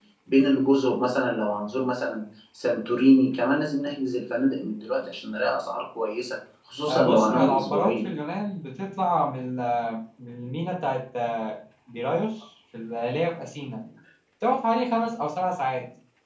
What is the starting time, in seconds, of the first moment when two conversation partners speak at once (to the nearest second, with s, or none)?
7 s